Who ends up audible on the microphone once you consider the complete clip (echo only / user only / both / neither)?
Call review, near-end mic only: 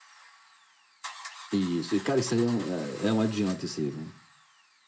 echo only